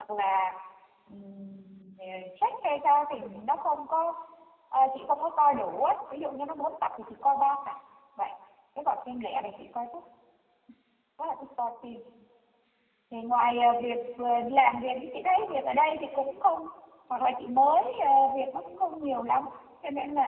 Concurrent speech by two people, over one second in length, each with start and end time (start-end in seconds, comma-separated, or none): none